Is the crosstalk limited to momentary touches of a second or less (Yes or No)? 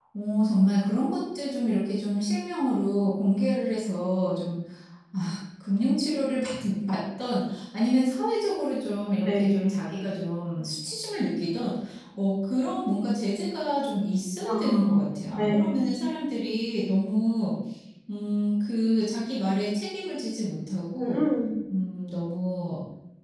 No